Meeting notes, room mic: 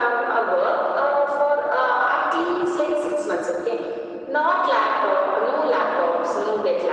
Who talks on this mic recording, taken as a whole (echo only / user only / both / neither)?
echo only